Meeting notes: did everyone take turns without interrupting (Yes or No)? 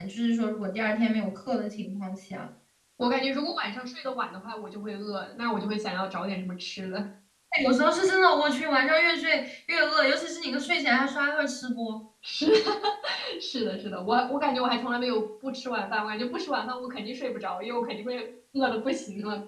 Yes